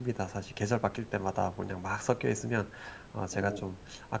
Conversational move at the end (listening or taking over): listening